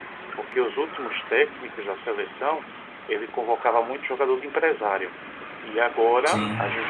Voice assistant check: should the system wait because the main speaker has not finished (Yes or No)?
Yes